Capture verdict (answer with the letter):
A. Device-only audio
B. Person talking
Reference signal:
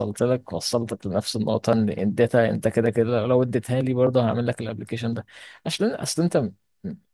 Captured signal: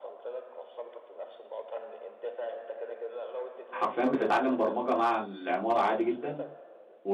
B